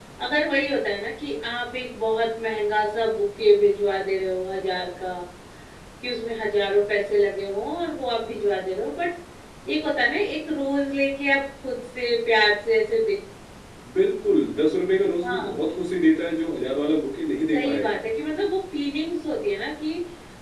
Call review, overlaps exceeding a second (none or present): none